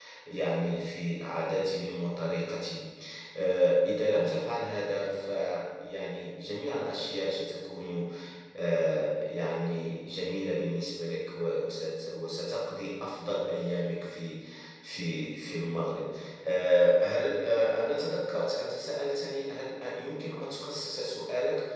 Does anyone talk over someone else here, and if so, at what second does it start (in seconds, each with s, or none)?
none